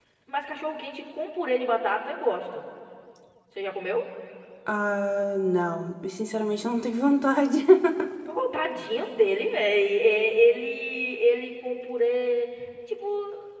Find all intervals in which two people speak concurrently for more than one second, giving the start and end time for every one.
none

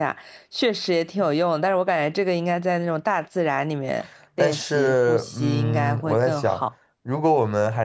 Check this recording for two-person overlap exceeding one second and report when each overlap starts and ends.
4.4-6.6

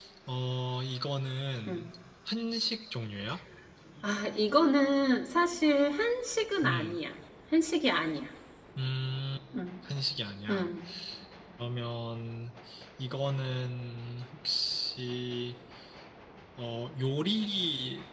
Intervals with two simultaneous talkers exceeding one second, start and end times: none

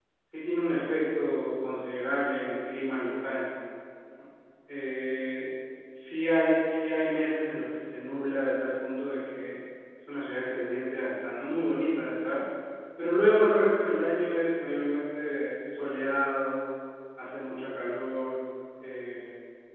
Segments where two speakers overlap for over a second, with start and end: none

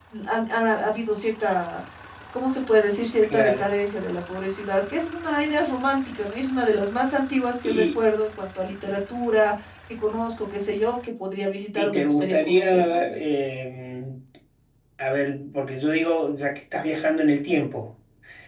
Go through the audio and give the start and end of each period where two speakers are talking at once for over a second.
11.8-13.0

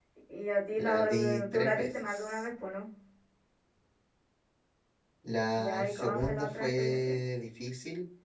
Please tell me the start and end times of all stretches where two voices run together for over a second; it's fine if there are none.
0.7-2.4, 5.6-7.1

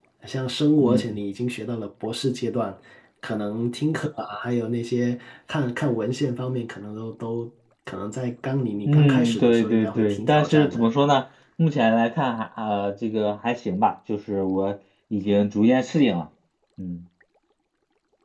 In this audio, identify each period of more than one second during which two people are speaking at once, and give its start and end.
8.9-10.9

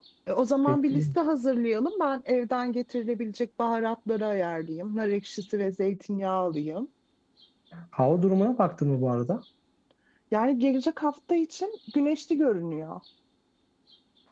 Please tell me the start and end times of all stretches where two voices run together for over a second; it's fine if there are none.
none

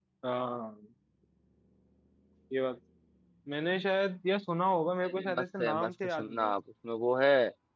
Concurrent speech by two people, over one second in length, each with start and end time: 5.0-6.5

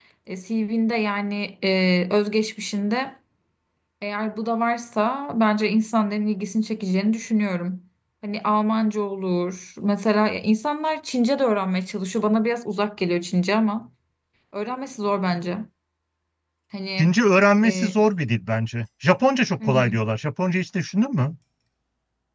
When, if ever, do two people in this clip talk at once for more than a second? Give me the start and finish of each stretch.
none

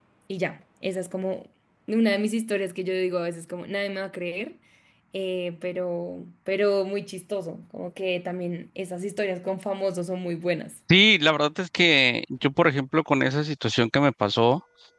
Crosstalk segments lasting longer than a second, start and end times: none

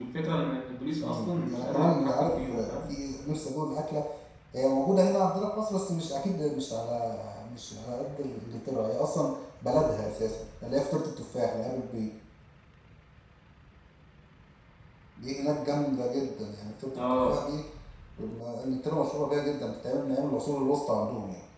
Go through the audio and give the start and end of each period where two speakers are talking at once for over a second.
1.0-2.9

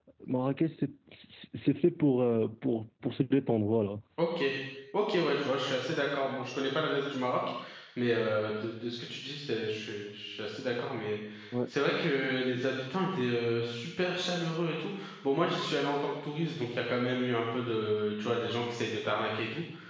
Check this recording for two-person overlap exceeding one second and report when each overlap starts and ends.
none

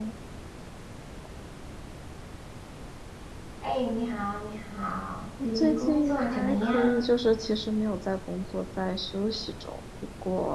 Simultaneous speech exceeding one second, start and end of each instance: 5.6-7.1

